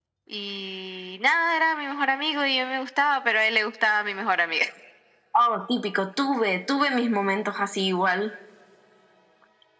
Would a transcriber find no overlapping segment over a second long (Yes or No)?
Yes